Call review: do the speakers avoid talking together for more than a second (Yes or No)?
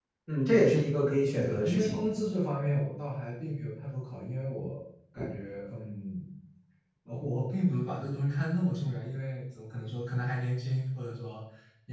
Yes